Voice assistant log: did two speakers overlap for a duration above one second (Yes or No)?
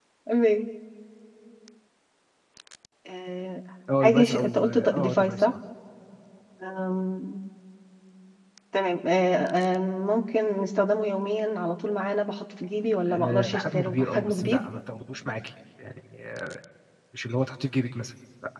Yes